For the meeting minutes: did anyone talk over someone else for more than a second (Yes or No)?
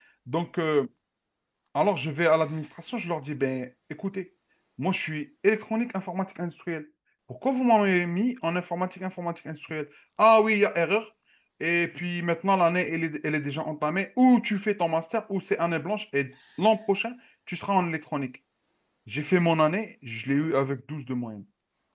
No